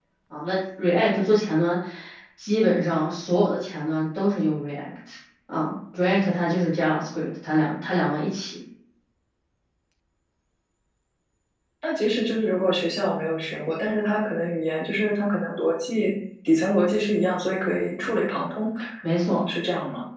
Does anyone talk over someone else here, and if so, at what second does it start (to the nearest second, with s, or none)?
none